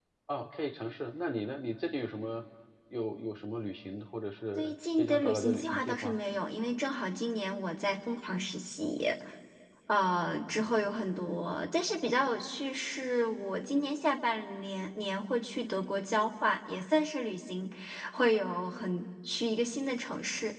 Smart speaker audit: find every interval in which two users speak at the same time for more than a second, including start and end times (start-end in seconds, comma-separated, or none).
4.6-6.2